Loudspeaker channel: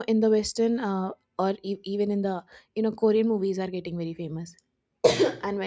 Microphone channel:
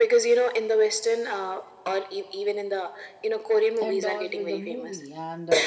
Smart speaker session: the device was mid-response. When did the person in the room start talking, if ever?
3.8 s

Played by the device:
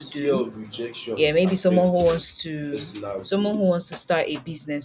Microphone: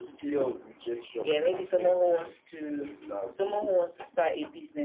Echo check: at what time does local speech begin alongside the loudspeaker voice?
none

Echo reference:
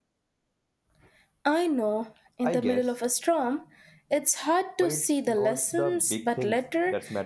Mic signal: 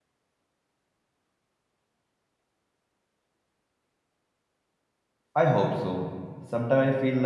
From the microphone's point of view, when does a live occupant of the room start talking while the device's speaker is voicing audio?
5.3 s

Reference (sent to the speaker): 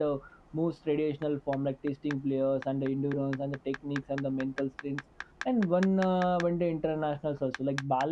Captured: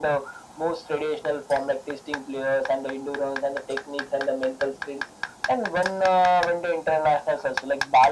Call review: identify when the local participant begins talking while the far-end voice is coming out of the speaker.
none

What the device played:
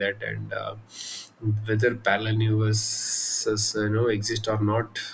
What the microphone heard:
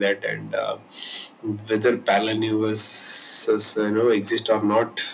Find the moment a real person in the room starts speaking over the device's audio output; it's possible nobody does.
none

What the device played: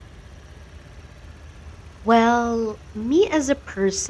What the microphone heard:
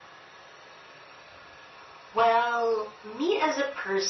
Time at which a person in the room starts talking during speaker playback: none

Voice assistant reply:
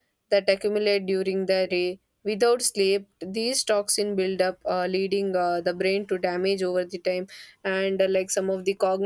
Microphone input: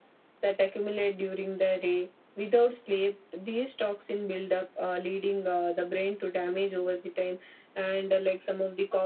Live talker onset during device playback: none

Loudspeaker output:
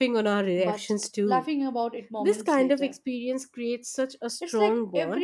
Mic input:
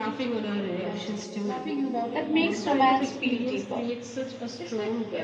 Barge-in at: 2.1 s

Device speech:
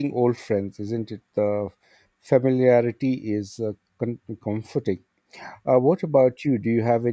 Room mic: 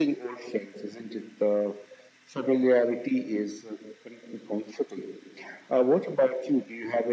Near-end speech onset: none

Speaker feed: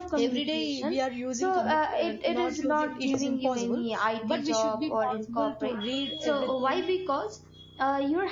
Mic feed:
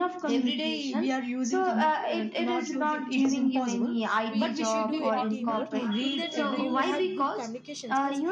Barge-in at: 4.3 s

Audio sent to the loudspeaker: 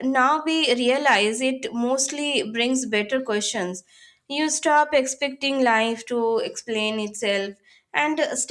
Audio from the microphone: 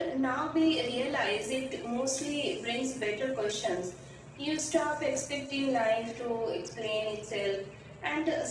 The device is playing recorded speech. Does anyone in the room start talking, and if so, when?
none

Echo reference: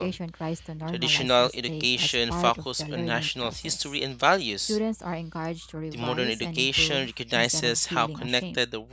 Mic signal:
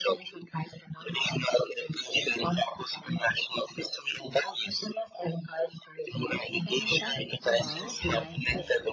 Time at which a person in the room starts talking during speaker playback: 6.6 s

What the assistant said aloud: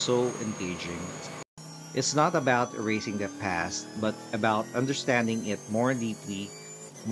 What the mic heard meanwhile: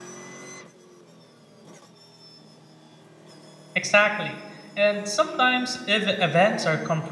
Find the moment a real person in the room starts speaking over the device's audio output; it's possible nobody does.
3.7 s

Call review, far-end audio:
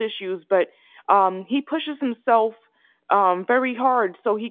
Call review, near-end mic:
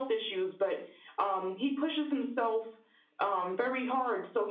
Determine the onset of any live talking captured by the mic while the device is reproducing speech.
none

